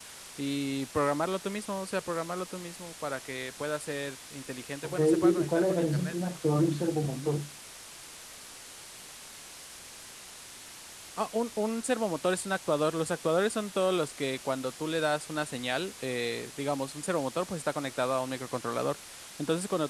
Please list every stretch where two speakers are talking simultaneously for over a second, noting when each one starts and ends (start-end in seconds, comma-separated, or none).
4.8-6.1